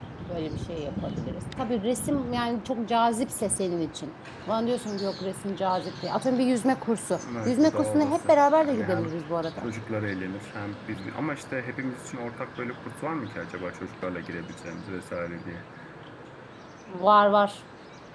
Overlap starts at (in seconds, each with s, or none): 7.2 s